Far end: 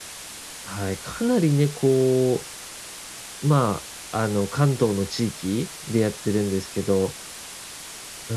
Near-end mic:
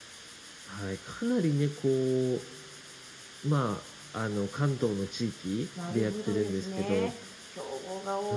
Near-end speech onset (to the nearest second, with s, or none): 6 s